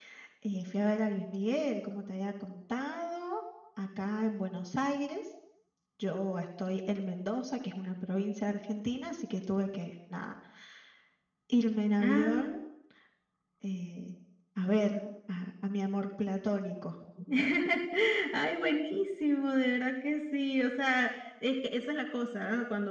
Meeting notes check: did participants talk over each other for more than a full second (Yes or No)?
No